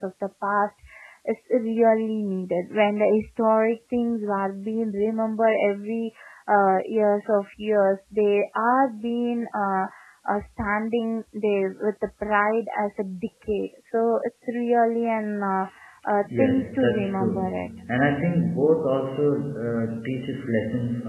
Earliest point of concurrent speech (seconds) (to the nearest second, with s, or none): 16 s